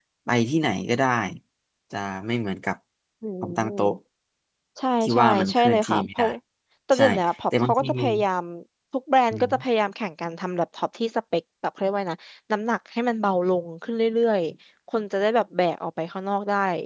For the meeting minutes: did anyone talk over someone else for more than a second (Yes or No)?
Yes